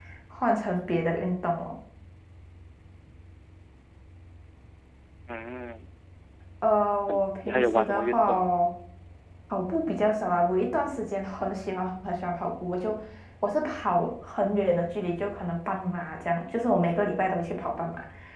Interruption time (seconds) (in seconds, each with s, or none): 7.1 s